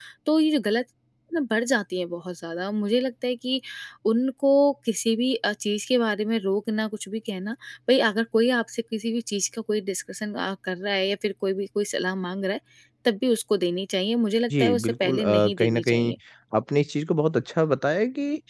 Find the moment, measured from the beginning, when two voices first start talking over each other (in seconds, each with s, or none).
14.5 s